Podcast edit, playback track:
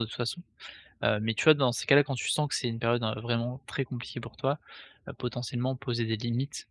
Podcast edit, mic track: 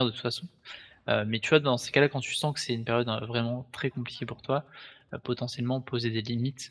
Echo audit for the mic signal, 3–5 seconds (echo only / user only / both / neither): echo only